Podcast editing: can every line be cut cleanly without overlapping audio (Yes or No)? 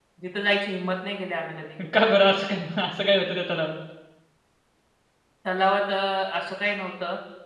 Yes